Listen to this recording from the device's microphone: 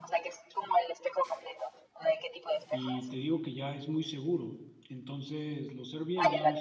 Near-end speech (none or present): present